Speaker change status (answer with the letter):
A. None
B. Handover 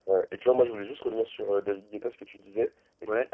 A